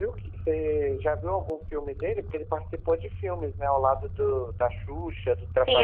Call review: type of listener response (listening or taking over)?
taking over